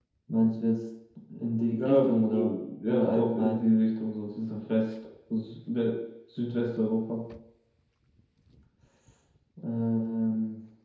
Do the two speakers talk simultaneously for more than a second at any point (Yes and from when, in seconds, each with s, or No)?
Yes, from 1.8 s